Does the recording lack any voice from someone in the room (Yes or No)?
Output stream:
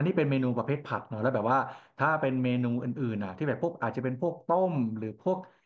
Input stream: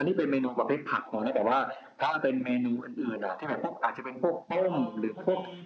No